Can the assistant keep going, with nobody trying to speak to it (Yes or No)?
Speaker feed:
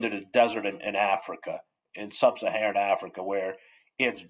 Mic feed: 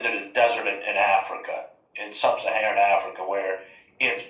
Yes